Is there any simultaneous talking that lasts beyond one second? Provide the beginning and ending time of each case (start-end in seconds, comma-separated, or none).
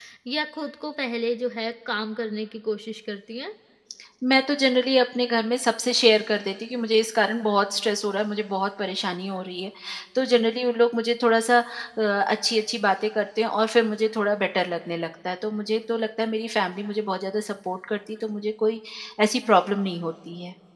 none